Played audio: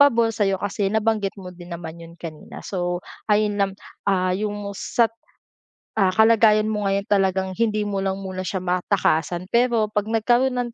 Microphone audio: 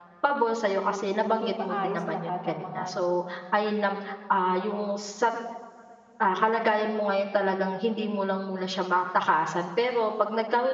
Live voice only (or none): maging maayos lahat ang mga